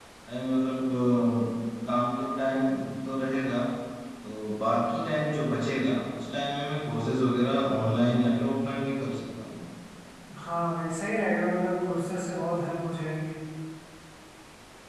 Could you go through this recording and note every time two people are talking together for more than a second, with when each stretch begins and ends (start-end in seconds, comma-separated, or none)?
none